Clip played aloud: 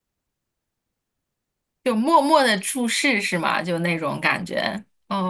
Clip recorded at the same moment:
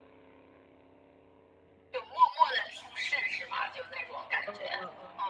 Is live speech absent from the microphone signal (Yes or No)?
No